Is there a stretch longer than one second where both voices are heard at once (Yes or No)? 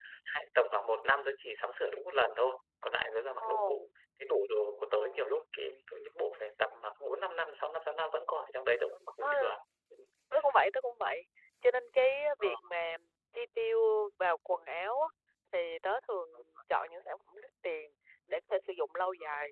No